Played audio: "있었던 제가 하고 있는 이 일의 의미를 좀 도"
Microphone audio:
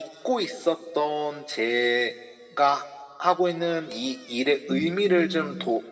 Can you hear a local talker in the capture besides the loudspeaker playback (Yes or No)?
Yes